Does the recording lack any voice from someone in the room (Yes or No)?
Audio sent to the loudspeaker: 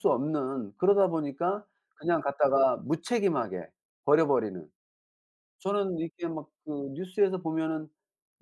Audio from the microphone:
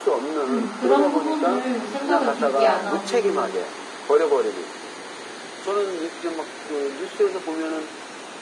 No